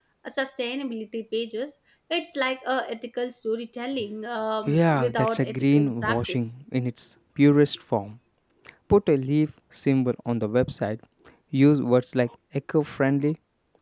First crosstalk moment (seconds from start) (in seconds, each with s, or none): 4.7 s